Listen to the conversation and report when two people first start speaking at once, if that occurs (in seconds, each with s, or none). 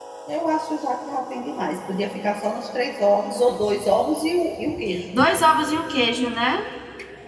none